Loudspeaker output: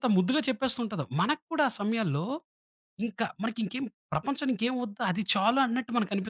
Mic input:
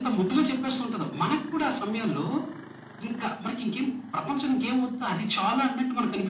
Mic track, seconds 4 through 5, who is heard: echo only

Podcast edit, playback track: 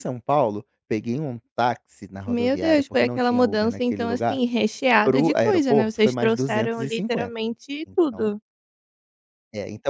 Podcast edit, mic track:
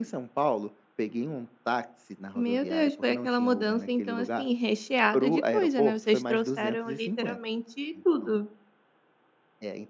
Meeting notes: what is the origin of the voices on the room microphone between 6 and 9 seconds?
echo only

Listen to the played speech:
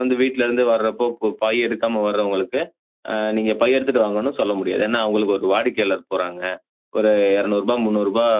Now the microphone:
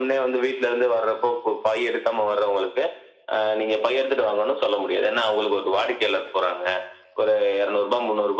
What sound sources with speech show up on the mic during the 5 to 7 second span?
echo only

